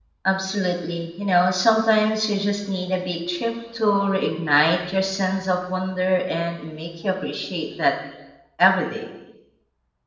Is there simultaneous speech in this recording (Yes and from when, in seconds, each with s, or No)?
No